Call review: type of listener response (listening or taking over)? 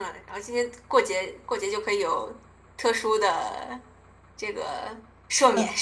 taking over